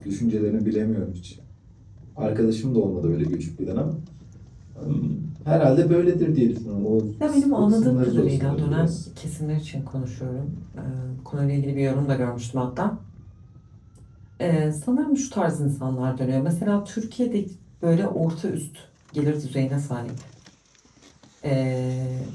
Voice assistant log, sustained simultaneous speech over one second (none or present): present